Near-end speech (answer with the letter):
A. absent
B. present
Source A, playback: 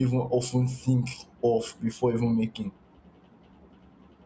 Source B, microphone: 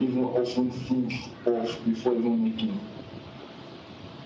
A